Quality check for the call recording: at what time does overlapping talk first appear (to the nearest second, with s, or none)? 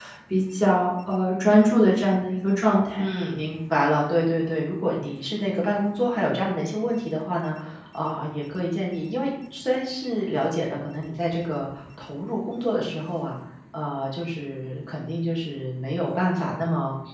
none